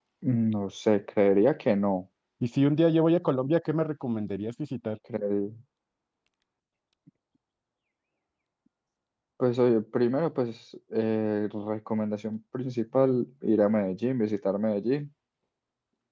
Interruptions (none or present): none